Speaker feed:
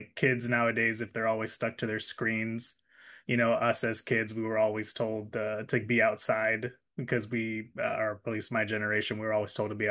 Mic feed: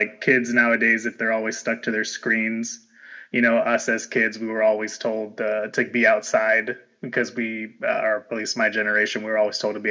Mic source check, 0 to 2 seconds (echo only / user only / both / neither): echo only